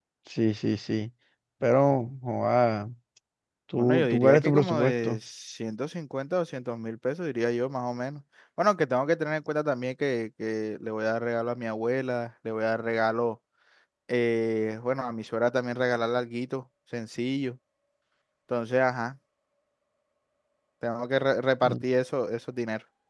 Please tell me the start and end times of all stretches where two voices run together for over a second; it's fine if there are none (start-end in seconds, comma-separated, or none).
3.8-5.2